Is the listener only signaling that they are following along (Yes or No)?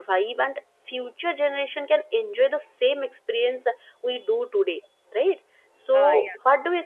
Yes